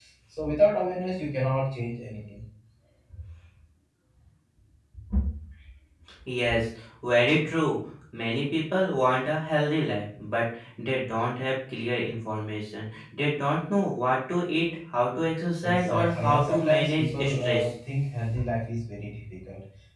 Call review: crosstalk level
present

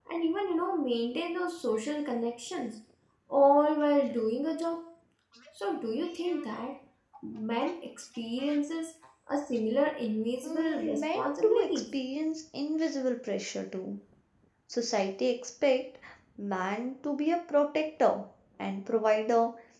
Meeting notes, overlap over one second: present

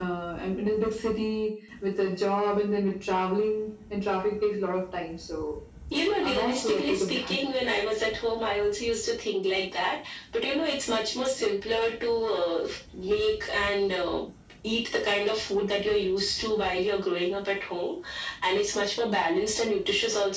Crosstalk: present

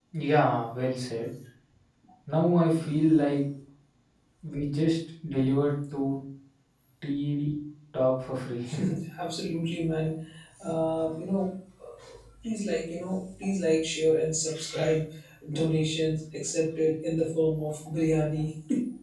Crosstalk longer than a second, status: none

